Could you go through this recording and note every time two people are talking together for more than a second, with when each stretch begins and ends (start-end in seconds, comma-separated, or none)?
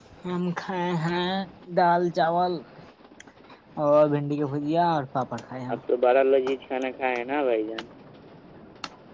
none